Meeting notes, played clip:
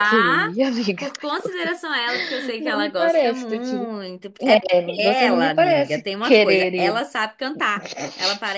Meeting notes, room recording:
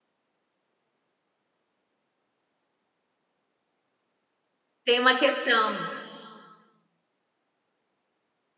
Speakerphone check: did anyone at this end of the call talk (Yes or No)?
Yes